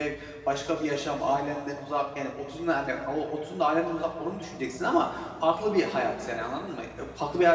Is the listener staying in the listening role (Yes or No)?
Yes